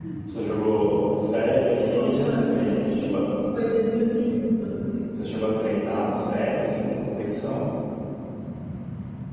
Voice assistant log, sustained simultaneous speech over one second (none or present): present